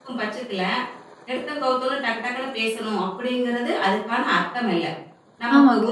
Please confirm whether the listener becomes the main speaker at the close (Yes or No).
No